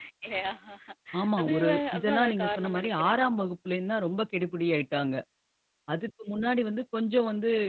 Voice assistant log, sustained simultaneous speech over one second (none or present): present